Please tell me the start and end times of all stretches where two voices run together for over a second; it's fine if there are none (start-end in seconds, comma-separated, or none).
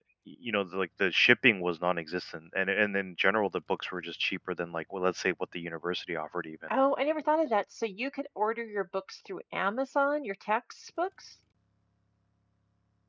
none